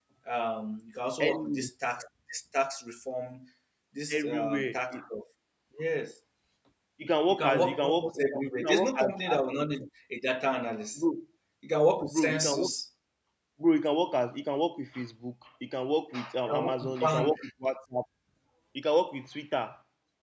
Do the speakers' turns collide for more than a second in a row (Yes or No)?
Yes